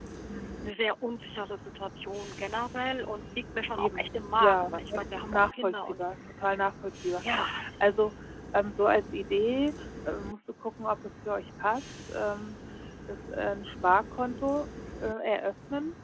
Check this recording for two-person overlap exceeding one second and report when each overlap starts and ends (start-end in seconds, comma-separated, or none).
3.8-6.0